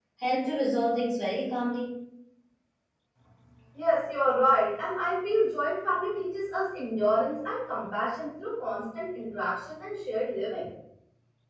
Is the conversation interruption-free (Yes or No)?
Yes